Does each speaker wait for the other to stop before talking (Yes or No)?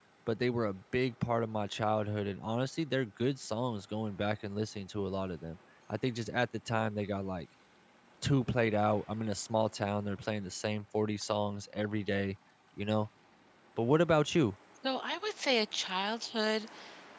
Yes